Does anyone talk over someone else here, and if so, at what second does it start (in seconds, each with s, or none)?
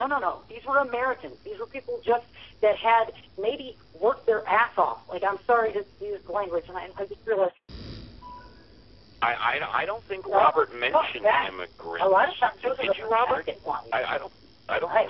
10.2 s